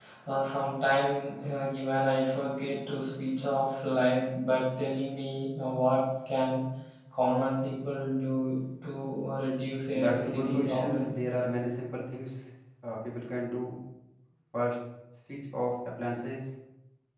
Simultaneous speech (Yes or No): Yes